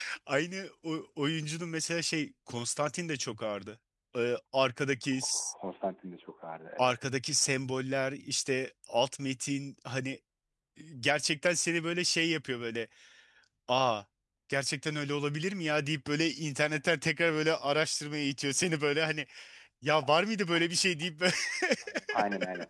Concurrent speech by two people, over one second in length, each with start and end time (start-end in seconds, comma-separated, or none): none